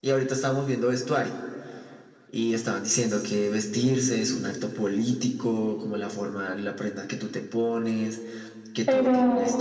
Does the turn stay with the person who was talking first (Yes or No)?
Yes